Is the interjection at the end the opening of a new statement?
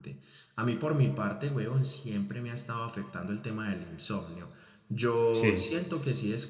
No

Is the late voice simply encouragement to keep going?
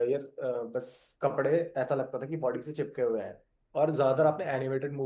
Yes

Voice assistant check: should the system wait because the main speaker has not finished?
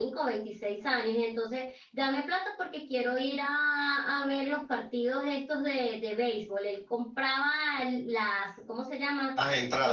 Yes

